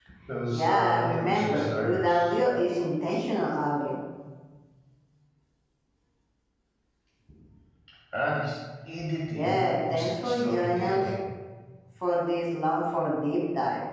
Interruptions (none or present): present